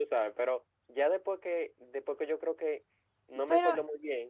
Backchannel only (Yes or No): Yes